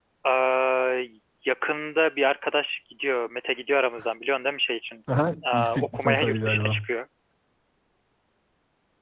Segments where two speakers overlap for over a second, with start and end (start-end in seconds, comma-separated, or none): 5.5-6.8